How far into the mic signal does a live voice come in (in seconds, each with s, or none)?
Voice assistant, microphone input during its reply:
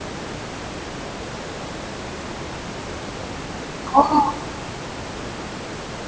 3.9 s